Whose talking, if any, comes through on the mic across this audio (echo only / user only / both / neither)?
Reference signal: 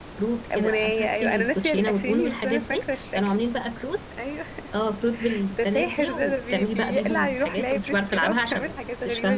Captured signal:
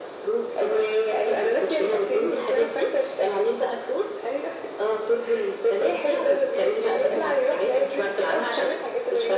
echo only